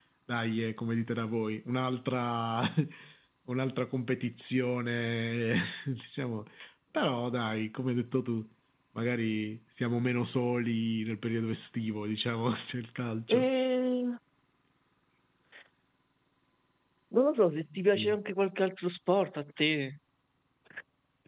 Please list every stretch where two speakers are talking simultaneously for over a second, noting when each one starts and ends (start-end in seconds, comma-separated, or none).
none